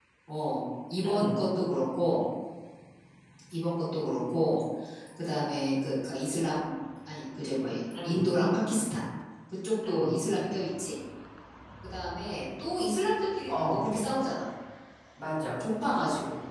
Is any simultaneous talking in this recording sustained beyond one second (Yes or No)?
No